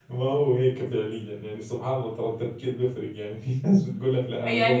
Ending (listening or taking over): taking over